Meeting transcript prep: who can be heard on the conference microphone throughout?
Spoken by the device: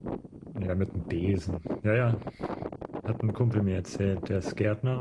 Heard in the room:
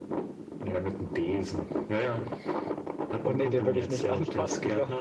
both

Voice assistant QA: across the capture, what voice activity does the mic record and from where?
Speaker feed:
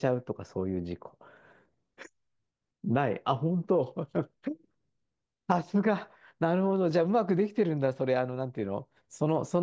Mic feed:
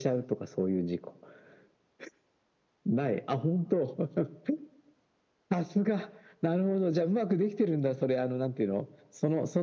echo only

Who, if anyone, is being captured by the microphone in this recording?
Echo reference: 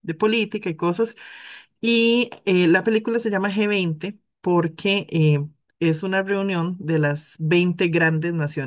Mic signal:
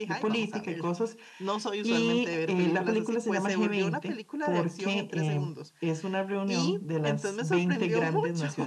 both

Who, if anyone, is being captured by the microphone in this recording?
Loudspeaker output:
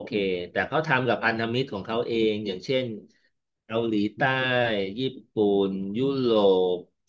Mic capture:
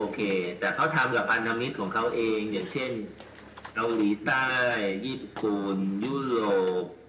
echo only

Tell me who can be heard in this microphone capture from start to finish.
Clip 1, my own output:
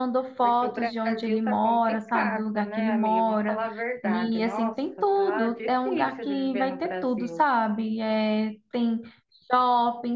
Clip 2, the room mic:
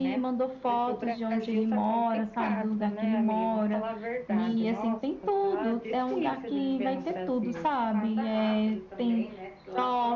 both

